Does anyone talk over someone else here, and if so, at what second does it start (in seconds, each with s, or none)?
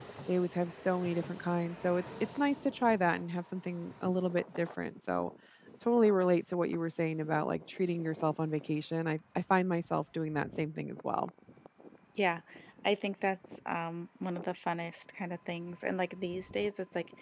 none